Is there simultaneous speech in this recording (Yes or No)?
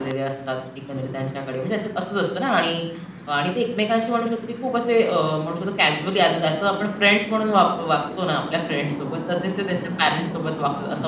No